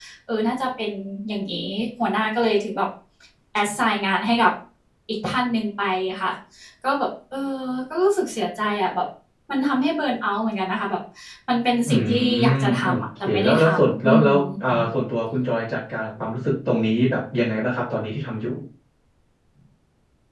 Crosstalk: present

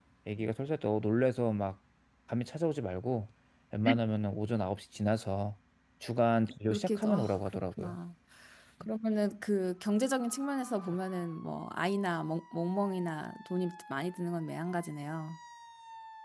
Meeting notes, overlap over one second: present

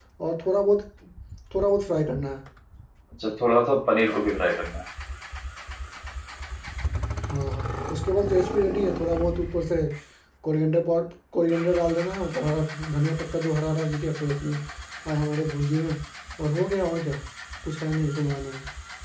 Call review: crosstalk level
none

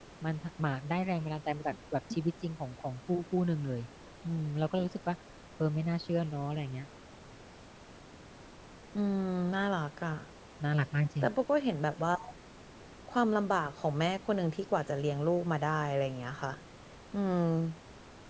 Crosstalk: none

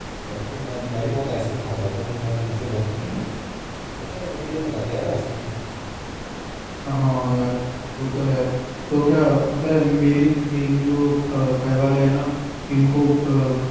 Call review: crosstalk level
none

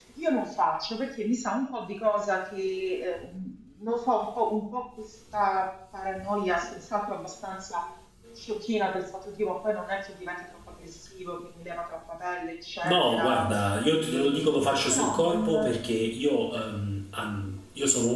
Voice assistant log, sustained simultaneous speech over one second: present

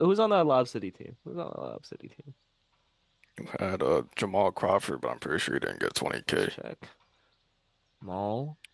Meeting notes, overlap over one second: none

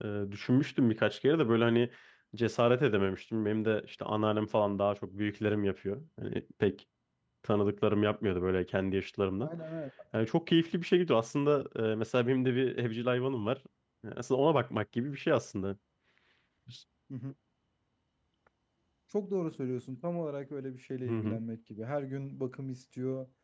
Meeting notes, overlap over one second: none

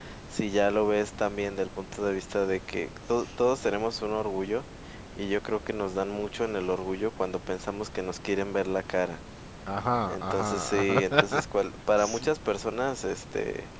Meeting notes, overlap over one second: present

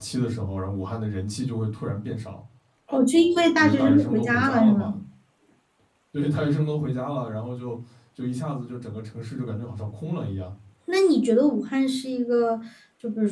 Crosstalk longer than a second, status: present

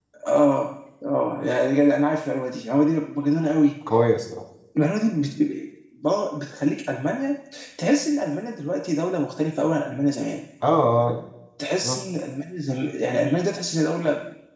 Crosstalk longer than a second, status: none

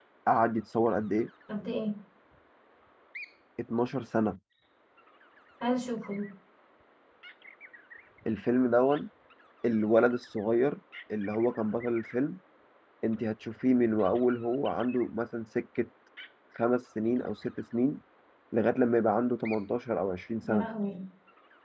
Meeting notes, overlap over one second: none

